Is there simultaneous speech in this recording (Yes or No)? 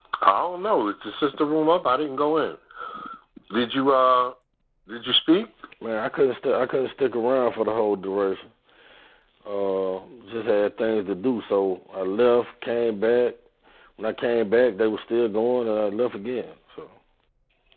No